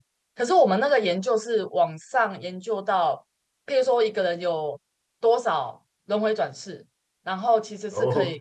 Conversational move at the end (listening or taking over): listening